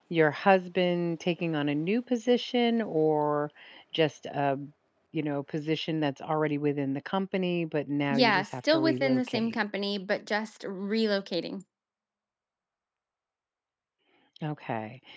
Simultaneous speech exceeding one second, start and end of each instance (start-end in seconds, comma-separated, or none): 8.1-9.6